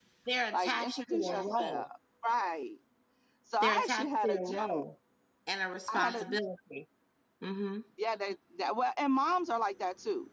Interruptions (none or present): present